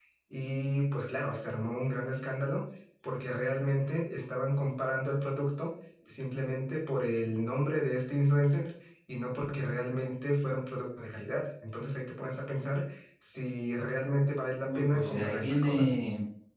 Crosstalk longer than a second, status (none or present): present